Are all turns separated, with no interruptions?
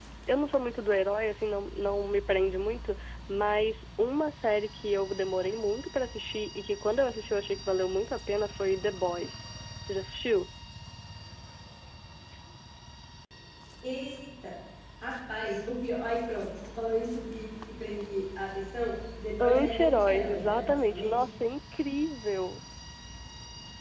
No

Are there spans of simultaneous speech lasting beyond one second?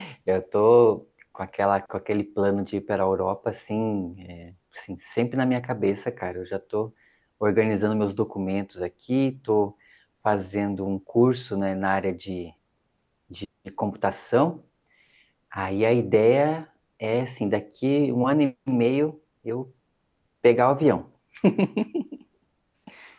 No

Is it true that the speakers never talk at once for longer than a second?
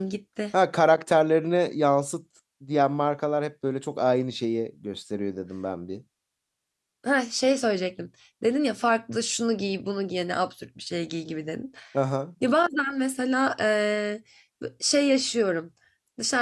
Yes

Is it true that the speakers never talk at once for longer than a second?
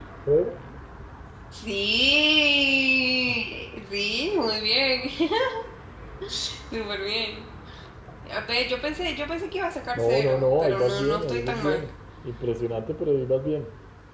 No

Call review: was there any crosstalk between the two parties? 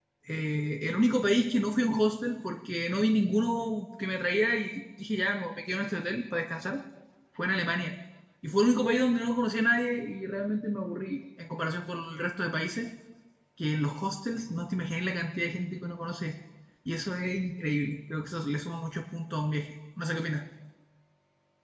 No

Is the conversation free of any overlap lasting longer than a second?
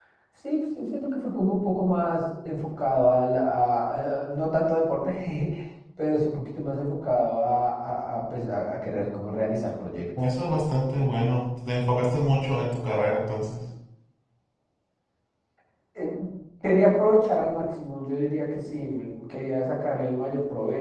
Yes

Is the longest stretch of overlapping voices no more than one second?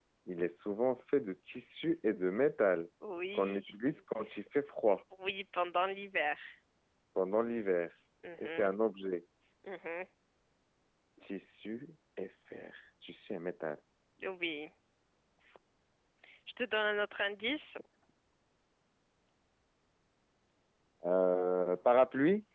Yes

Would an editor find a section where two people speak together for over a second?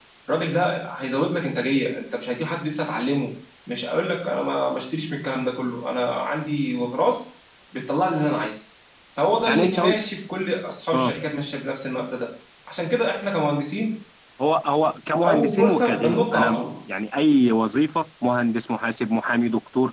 Yes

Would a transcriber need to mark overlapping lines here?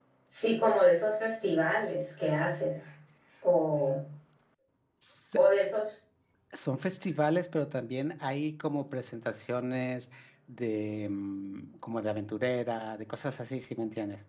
No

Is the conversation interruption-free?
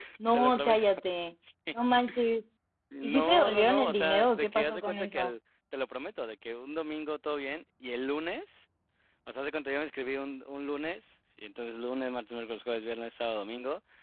No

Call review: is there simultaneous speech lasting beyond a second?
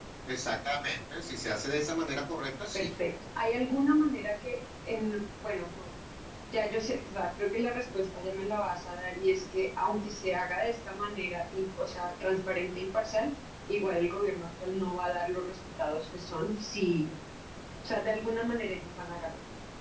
No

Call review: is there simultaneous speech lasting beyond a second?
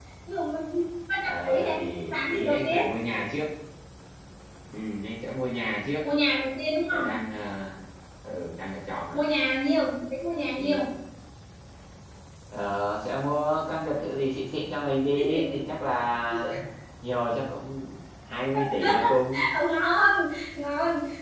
Yes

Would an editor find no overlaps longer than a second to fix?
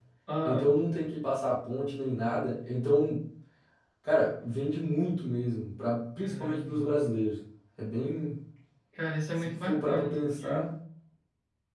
No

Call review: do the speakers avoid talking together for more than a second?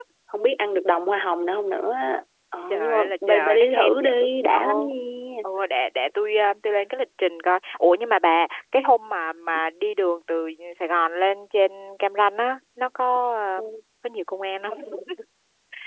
No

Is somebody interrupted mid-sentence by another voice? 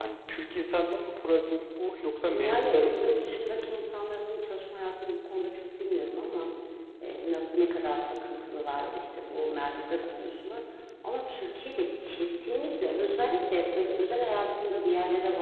Yes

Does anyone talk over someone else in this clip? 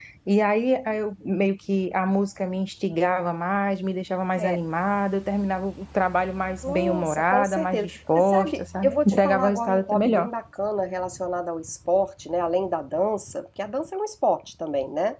Yes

